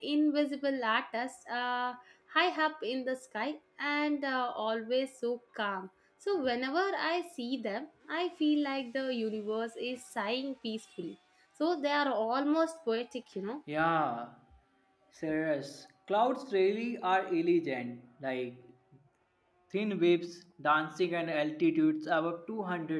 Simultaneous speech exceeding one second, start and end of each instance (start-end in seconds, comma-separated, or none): none